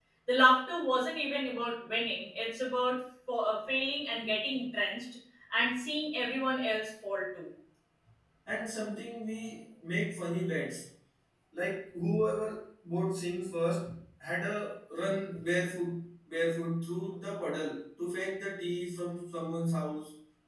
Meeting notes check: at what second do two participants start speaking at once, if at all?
none

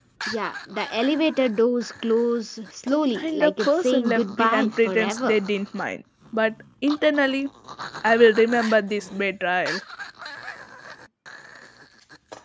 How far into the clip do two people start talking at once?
3.1 s

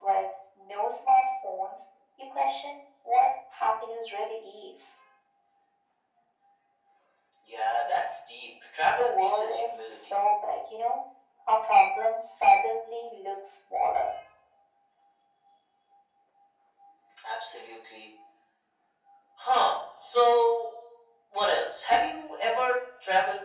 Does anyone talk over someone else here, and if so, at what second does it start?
8.9 s

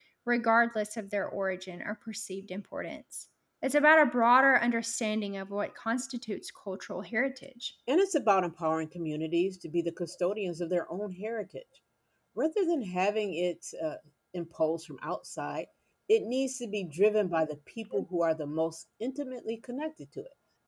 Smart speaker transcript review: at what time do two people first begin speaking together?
none

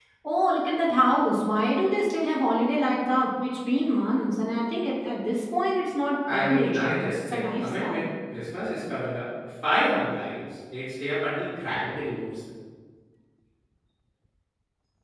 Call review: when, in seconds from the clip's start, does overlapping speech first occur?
6.3 s

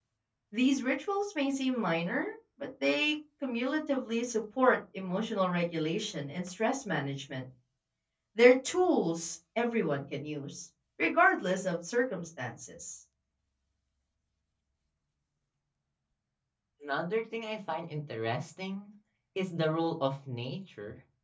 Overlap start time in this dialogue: none

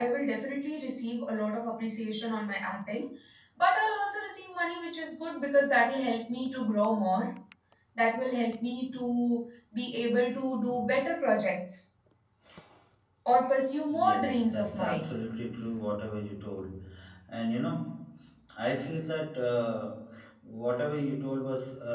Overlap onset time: 13.9 s

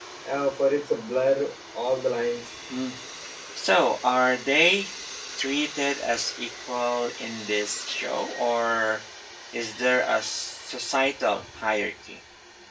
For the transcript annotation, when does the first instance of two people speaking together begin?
none

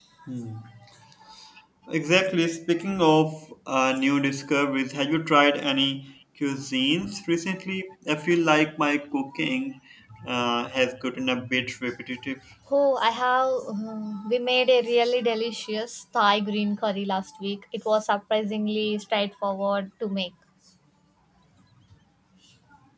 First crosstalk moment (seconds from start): none

